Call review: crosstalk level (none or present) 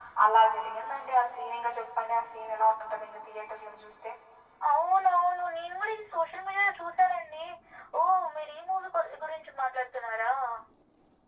none